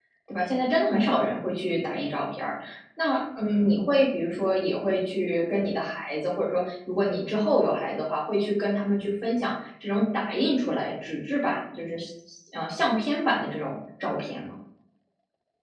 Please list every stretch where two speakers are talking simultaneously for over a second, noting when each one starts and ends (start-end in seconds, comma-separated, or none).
none